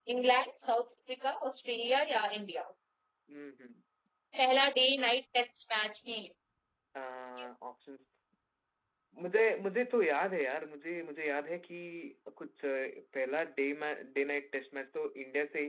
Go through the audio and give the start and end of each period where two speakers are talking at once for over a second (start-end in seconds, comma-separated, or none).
none